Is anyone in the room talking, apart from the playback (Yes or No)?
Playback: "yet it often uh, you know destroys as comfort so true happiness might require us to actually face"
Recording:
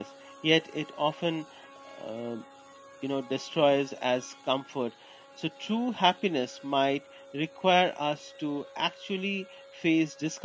No